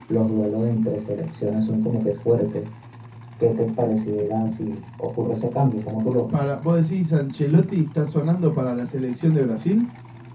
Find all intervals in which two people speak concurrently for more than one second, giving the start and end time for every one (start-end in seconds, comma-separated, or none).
none